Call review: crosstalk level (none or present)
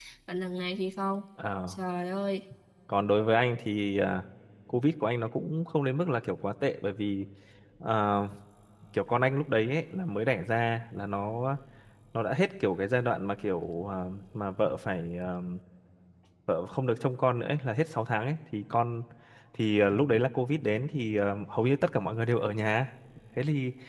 none